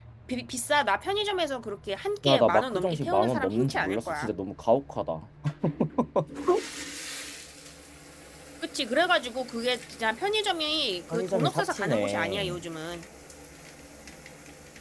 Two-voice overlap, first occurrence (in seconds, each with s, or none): 2.2 s